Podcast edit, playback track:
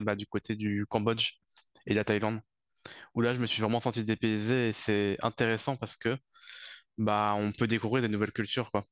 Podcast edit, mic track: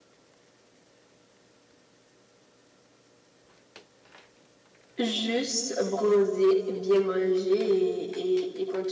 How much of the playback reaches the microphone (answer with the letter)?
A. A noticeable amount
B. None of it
B